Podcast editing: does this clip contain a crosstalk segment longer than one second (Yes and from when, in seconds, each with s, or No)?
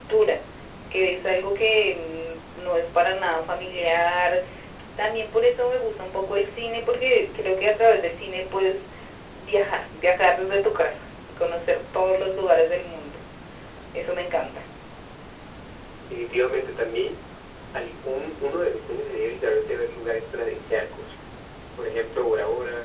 No